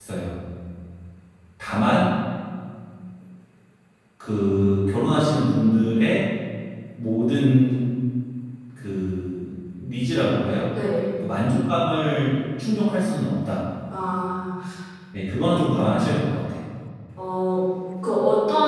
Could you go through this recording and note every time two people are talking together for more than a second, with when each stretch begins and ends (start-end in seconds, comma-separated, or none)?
none